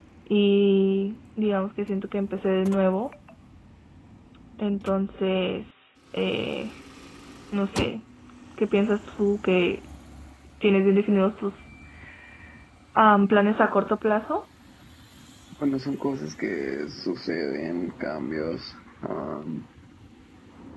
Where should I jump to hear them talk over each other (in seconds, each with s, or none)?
none